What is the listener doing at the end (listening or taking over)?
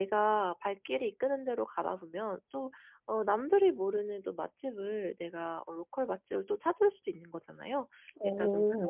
listening